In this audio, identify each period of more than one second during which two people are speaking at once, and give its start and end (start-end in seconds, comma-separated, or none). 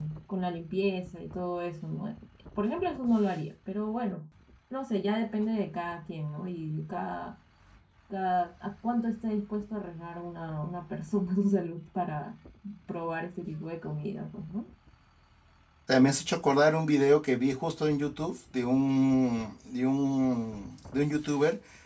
none